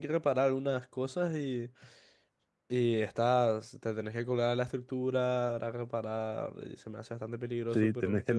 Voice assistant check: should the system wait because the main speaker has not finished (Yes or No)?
No